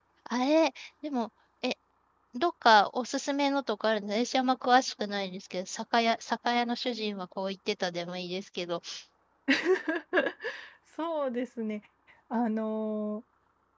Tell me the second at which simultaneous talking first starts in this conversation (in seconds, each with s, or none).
none